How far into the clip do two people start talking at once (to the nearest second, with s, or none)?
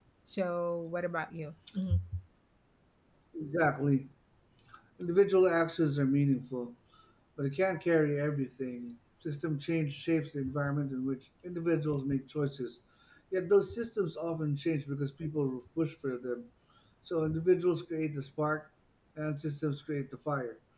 none